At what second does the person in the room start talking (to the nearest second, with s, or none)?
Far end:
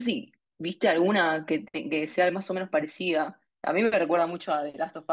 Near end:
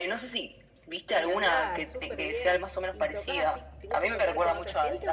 1 s